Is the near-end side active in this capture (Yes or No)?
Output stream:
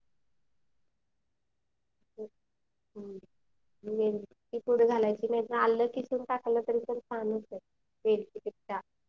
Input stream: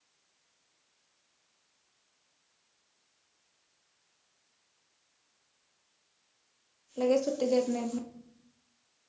Yes